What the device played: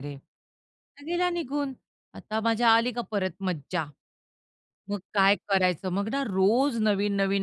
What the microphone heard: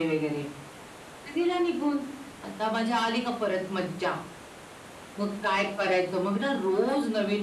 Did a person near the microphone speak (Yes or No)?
No